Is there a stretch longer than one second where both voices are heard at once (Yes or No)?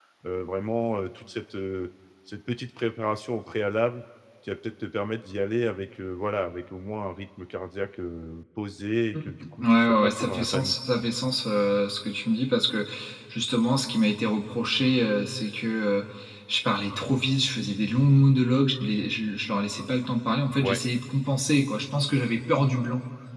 Yes